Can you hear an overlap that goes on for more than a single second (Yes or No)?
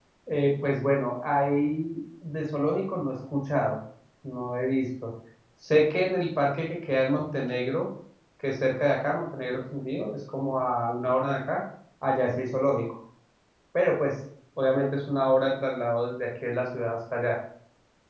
No